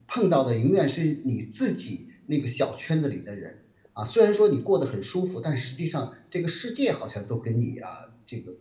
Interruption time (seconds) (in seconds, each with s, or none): none